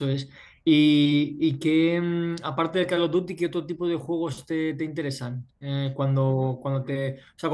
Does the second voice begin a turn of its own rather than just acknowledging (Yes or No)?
No